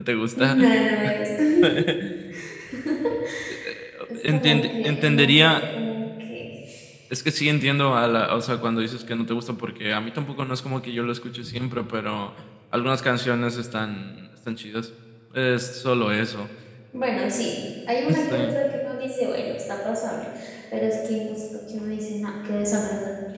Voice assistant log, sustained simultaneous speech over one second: present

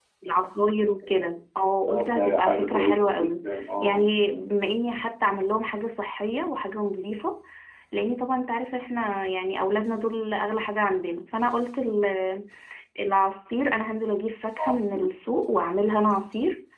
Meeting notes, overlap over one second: present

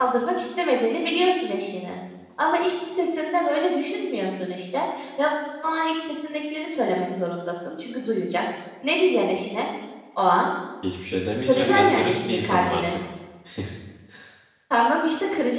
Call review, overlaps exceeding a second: present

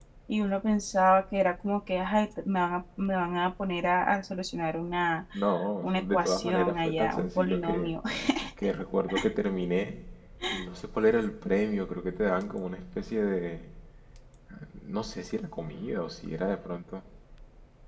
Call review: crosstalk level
present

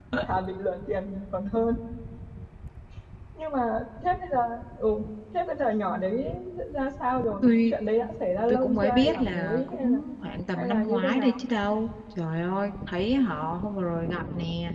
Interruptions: present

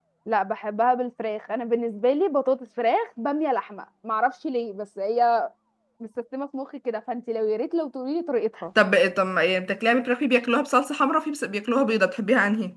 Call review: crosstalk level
none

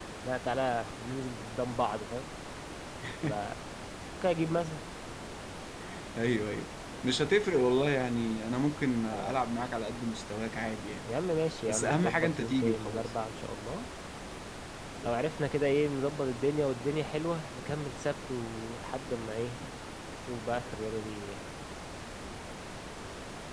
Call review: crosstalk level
present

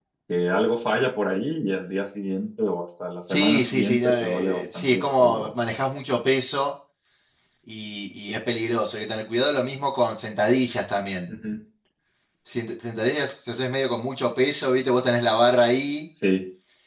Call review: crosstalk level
present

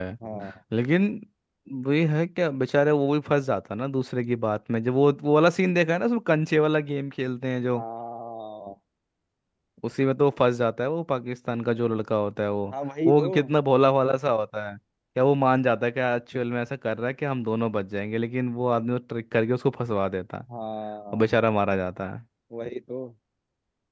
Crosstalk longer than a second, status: none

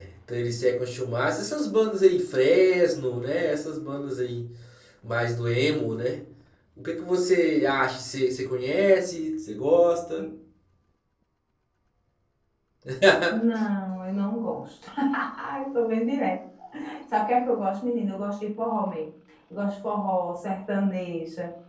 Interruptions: none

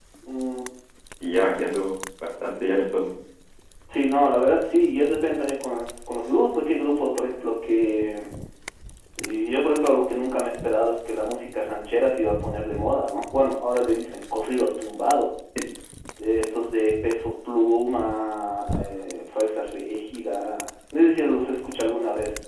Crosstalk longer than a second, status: none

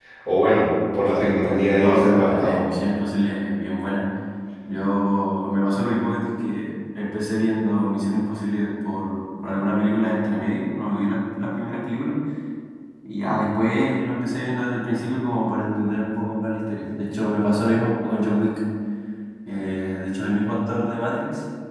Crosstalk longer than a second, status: present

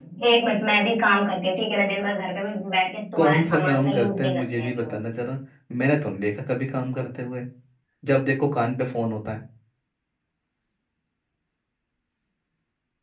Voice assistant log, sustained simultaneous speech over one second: present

